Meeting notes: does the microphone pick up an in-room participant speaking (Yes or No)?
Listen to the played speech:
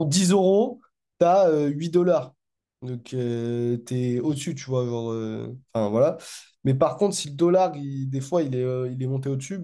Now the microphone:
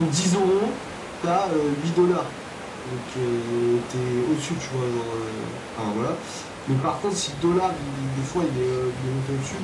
No